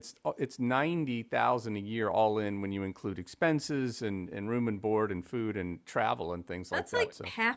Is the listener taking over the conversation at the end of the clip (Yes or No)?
Yes